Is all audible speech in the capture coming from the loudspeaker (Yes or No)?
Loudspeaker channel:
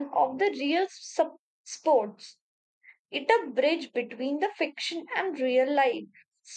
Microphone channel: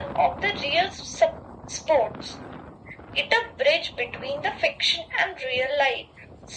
Yes